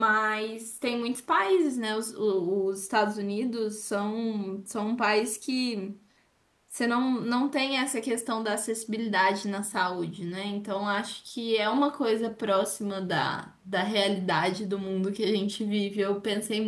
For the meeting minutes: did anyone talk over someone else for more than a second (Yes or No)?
No